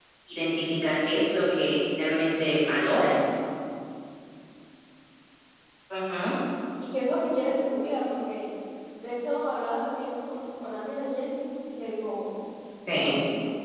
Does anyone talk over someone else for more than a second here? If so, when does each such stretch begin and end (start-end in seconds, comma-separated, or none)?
none